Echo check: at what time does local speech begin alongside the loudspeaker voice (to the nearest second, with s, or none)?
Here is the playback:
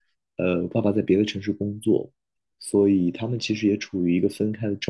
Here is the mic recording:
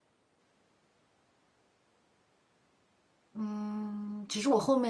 3 s